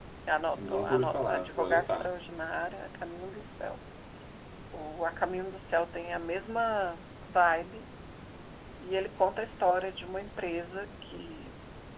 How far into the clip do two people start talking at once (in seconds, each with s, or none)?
0.5 s